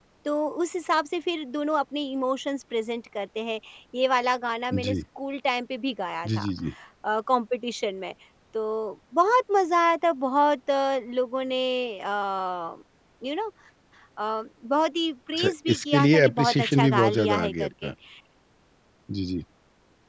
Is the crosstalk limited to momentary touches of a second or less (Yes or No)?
No